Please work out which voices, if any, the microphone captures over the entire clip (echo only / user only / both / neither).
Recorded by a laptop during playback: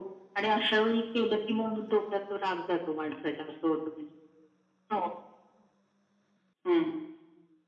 echo only